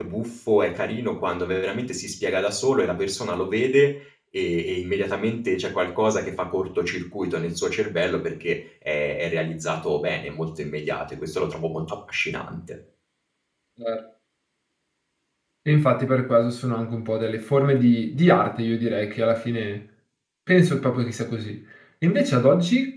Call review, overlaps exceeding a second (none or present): none